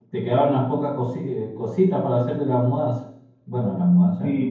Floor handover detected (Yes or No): Yes